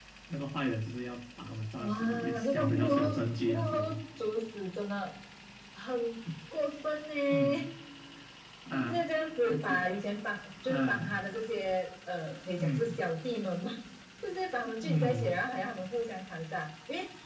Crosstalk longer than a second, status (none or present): present